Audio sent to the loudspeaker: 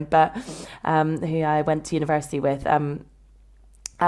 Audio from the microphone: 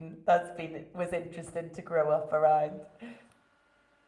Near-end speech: present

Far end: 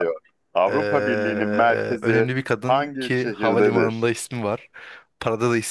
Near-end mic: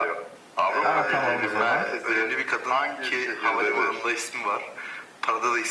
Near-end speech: present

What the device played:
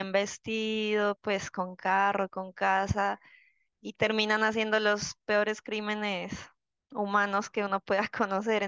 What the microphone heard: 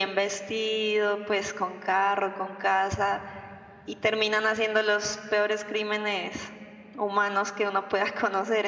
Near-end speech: none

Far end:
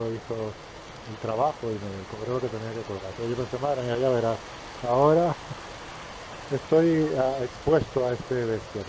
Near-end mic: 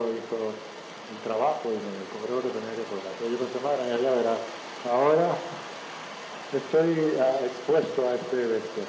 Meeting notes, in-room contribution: none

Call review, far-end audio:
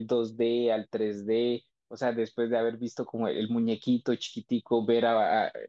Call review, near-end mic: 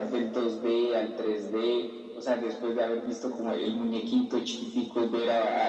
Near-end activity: none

